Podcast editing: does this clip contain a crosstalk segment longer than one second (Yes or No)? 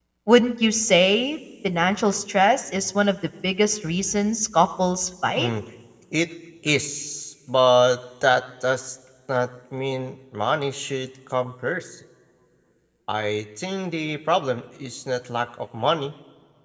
No